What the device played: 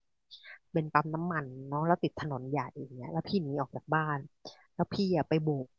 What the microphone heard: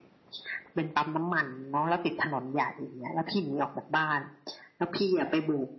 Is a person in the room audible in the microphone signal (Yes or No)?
No